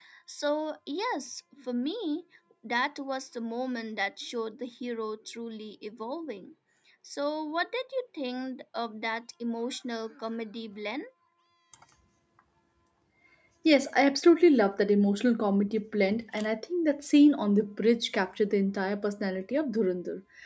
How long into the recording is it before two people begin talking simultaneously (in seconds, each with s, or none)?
none